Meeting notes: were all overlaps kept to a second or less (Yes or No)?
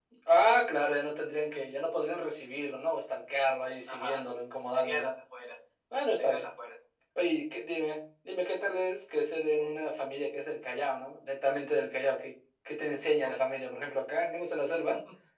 Yes